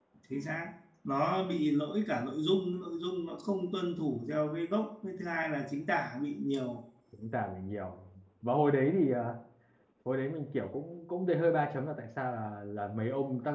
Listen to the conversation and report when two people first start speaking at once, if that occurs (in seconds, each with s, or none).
none